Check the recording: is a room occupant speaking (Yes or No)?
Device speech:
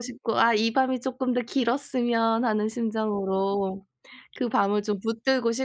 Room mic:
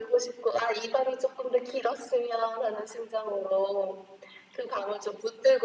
No